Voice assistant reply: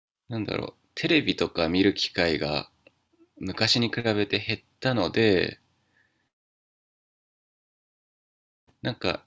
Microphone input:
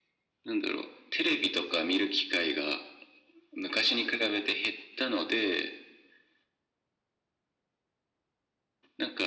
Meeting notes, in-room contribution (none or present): none